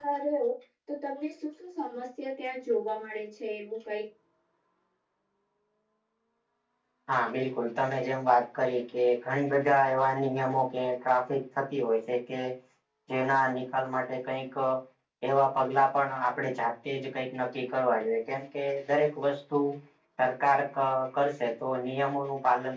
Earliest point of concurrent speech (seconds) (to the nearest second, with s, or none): none